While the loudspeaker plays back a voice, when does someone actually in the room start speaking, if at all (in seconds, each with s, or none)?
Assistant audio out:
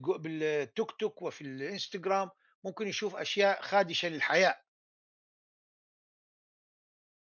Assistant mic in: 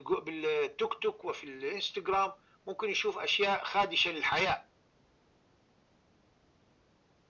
none